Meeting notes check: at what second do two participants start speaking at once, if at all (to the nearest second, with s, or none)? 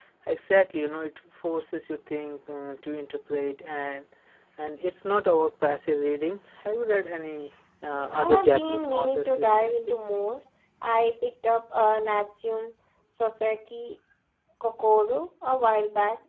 8 s